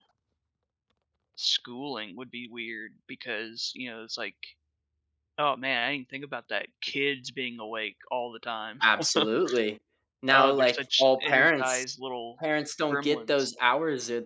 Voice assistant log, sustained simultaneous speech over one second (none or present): present